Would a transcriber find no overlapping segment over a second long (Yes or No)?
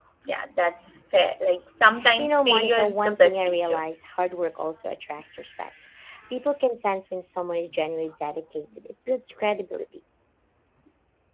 No